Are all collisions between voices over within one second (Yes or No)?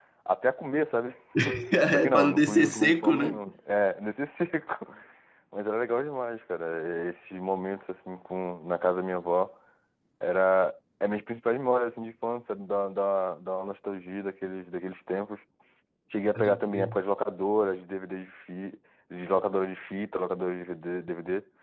No